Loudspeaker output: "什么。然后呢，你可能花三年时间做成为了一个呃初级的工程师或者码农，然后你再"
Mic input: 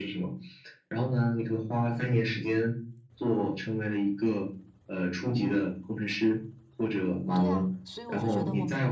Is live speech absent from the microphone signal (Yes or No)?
No